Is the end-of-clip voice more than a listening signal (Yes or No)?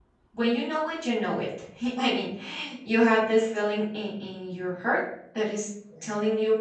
No